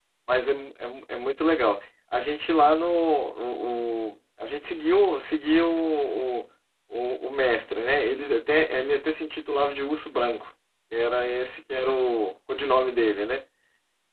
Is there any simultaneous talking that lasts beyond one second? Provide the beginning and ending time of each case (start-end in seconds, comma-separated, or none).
none